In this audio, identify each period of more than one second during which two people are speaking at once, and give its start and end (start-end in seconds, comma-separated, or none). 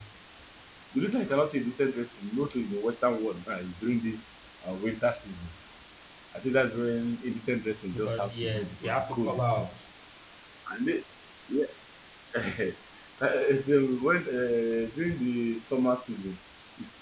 7.9-9.7